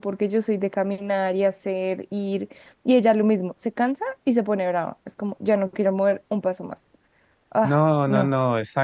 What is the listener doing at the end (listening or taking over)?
taking over